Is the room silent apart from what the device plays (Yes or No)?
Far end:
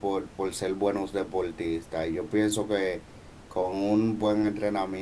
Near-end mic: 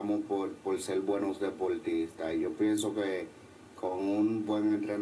Yes